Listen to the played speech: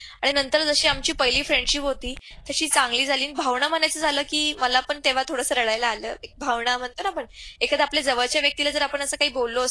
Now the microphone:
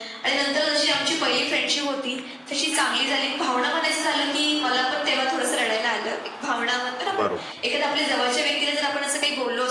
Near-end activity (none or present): present